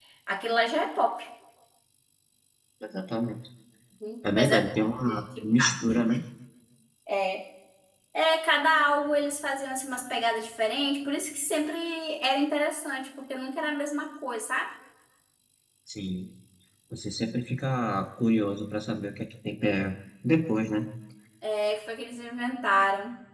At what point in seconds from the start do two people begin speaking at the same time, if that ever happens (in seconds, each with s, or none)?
4.3 s